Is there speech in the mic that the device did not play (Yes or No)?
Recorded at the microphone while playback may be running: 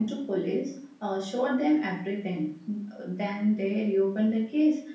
Yes